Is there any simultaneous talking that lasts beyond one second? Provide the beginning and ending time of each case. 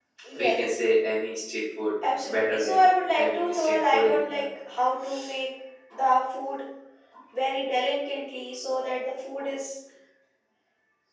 2.0-4.5

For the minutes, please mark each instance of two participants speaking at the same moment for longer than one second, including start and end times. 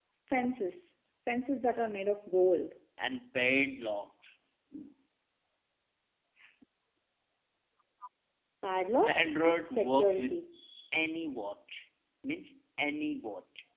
9.0-10.4

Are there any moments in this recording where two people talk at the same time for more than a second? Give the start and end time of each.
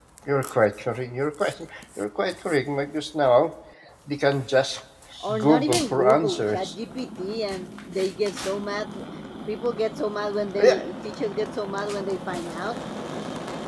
5.4-6.8

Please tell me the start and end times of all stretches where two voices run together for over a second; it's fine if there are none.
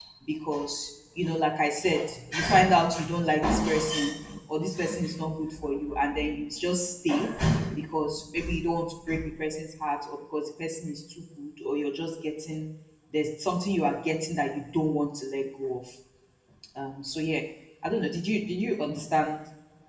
none

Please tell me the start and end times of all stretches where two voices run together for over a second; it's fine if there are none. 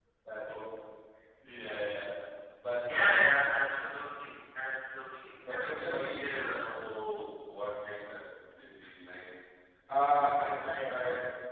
5.4-6.6

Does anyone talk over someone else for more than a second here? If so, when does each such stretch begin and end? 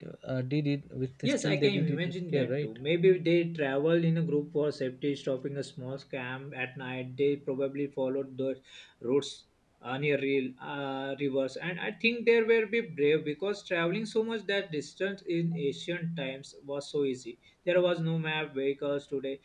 1.2-2.7

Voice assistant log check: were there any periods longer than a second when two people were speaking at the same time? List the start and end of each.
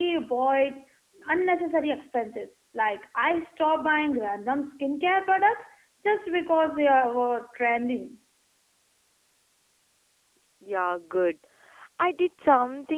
none

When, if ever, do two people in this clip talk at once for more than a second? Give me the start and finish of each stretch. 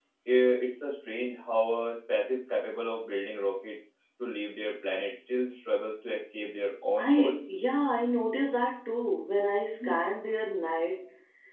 none

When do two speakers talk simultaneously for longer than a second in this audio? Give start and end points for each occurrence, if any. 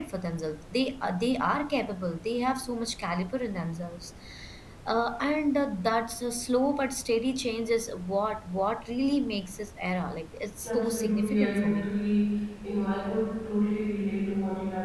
10.7-11.9

